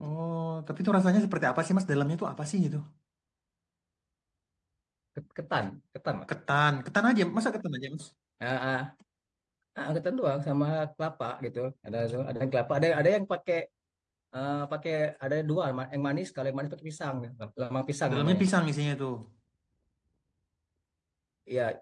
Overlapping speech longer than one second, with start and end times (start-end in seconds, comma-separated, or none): none